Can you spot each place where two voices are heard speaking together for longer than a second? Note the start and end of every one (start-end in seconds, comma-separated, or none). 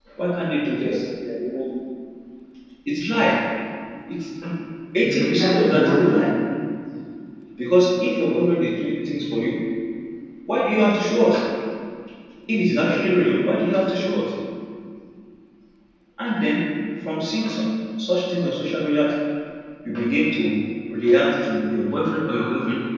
5.0-6.3